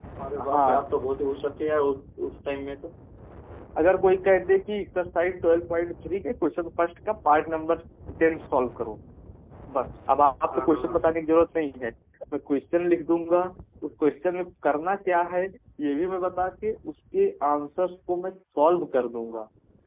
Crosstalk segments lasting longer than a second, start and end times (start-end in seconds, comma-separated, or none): none